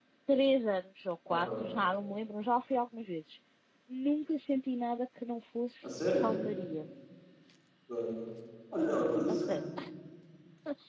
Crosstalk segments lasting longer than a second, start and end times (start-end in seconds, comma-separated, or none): none